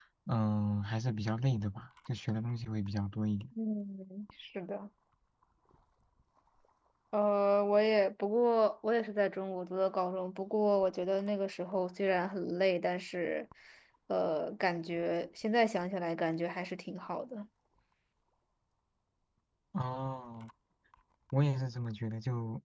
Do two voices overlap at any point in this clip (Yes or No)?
No